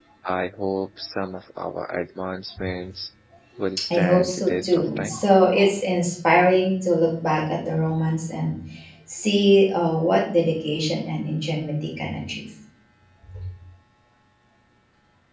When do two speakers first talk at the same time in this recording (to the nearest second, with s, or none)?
4 s